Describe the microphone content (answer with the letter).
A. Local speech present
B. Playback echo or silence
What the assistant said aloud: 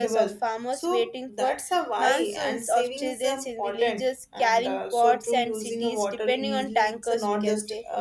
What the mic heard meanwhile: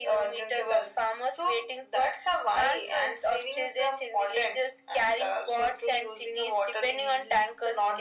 B